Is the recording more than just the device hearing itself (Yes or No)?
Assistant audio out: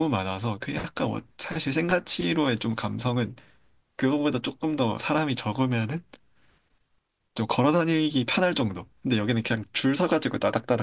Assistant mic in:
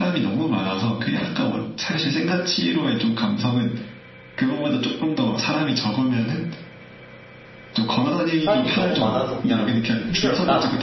Yes